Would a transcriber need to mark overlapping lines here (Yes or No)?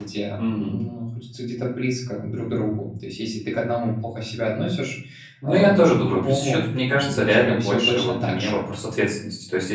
Yes